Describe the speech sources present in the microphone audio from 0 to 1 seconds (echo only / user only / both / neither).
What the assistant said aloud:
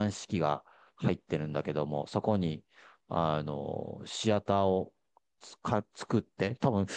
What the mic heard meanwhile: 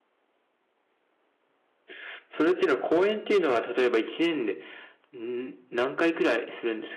neither